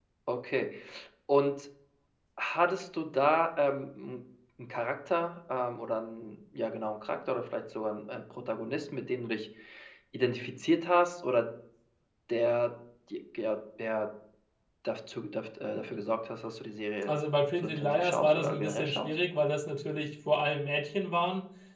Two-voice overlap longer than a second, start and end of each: 17.6-19.1

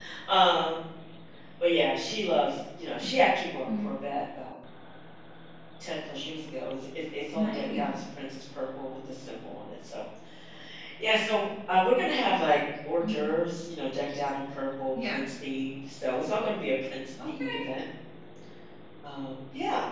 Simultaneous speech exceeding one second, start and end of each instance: none

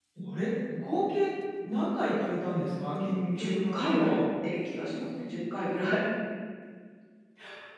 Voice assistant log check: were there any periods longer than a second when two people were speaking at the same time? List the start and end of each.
2.8-4.1

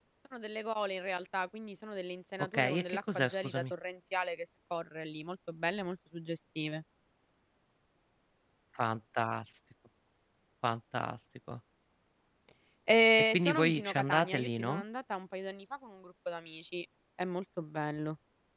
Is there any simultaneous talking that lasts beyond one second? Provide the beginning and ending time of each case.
2.4-3.7, 13.3-14.8

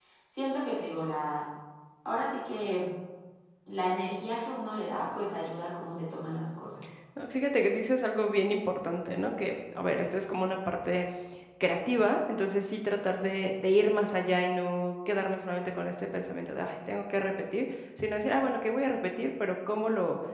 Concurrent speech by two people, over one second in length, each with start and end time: none

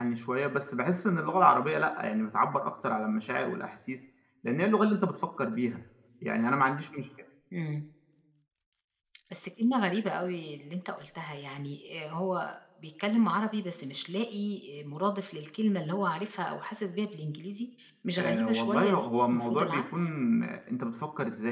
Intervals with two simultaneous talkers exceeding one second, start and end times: 18.2-20.0

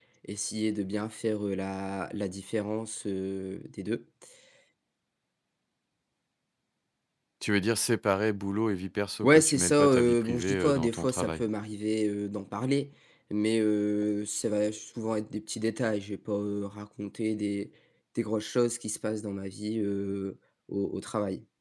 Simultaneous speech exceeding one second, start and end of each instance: 9.2-11.4

